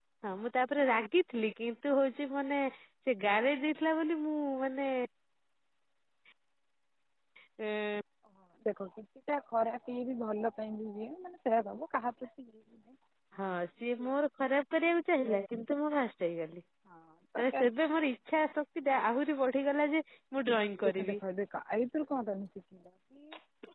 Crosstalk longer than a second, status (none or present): none